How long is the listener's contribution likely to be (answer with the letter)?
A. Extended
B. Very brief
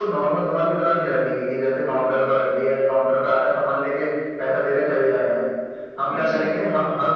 B